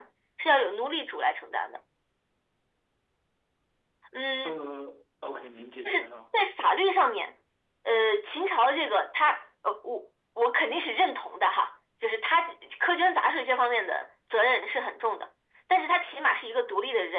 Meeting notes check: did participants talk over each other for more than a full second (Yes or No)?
No